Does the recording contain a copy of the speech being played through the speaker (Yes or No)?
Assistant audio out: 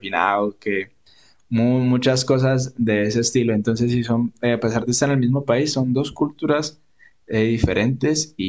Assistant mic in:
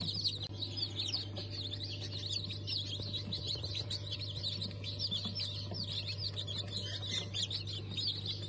No